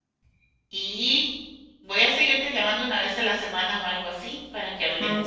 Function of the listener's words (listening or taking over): taking over